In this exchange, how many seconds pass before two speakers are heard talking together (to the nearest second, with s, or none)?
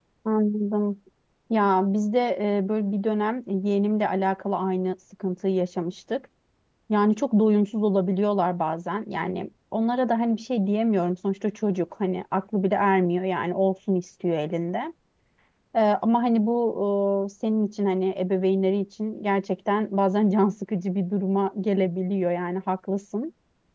none